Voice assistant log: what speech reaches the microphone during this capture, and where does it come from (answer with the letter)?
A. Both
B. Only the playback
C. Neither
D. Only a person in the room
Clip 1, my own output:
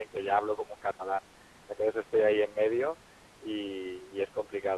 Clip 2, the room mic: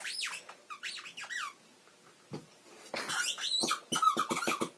C